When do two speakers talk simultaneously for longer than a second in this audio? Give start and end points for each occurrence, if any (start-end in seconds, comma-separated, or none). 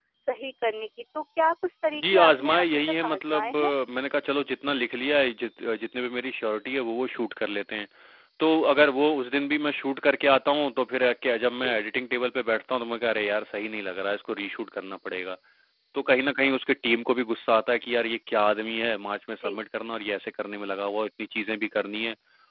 1.9-3.7